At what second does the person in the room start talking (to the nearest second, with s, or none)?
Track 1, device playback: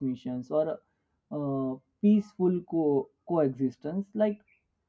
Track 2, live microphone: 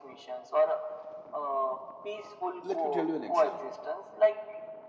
3 s